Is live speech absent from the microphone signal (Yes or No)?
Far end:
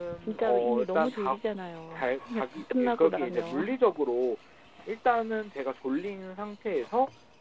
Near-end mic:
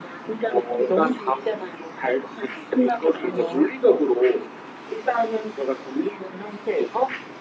Yes